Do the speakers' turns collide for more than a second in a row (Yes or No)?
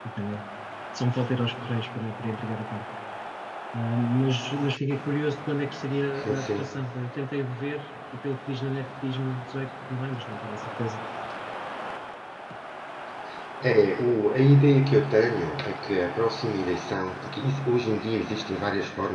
No